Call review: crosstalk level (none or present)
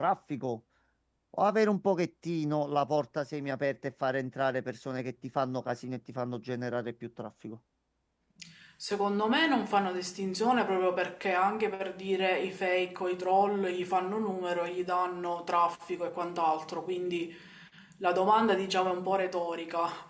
none